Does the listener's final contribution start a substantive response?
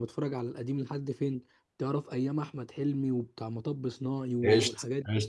Yes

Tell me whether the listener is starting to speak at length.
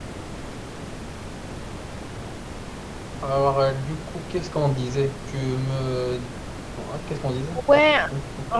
Yes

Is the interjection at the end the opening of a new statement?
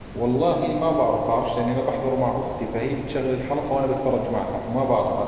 Yes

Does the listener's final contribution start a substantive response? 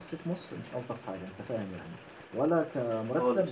No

